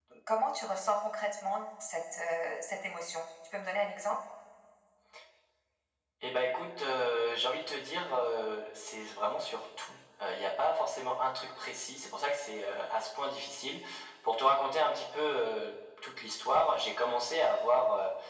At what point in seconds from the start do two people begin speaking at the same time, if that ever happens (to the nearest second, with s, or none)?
none